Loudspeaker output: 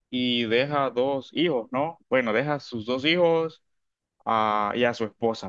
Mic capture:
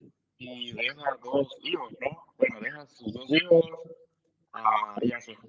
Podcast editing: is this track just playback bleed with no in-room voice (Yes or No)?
Yes